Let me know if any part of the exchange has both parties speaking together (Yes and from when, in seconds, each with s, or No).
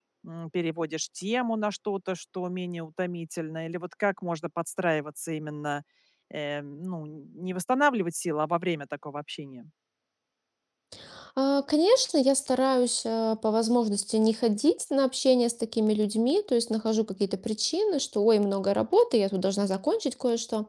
No